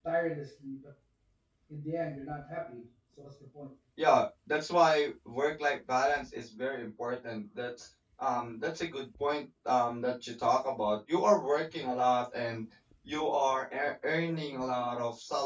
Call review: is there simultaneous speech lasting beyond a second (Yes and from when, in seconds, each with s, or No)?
No